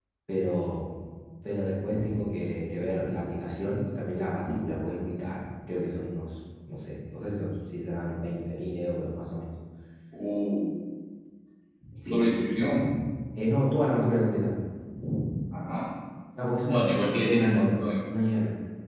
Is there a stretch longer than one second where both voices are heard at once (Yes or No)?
Yes